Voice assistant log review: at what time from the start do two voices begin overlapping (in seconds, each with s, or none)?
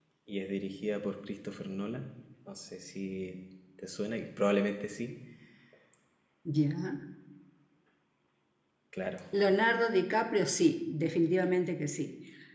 none